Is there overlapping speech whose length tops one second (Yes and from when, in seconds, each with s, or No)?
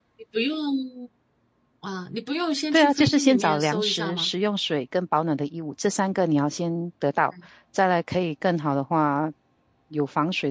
Yes, from 2.7 s